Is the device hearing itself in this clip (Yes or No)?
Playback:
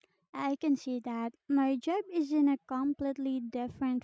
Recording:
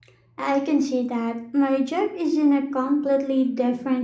Yes